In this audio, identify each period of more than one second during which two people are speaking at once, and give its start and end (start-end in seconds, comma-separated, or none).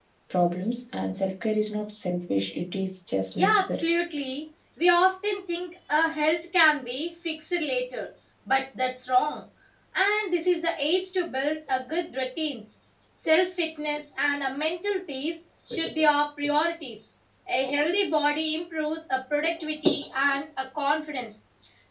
none